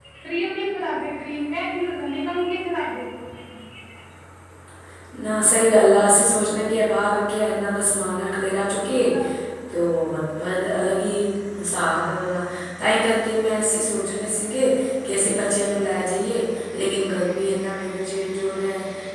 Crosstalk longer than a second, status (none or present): none